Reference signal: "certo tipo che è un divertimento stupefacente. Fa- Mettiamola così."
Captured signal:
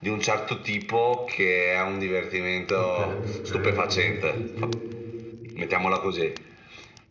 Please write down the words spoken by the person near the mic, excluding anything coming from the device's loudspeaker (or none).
Ok, ok, ok. Sì, sì.